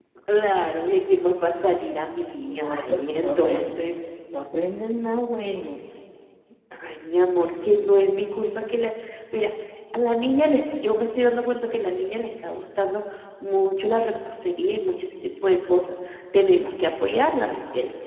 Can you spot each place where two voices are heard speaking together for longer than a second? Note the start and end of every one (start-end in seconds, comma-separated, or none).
2.4-3.8